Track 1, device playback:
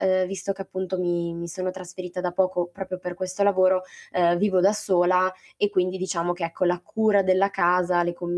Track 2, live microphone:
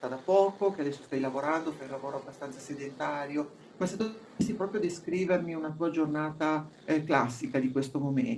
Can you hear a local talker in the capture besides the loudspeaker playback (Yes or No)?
Yes